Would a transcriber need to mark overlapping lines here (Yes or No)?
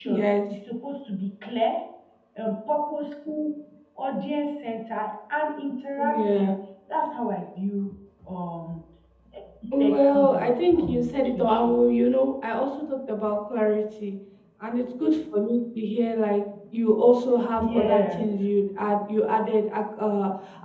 Yes